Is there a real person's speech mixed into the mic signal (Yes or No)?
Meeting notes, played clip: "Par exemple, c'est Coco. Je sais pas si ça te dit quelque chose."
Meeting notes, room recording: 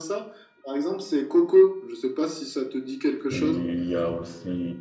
Yes